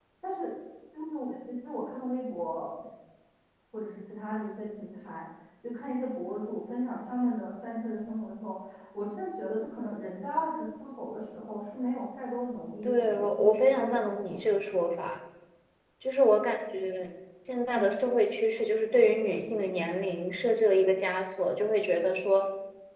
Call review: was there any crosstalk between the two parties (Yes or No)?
Yes